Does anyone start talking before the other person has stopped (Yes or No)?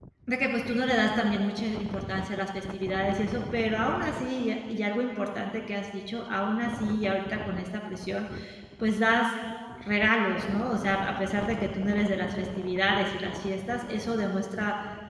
No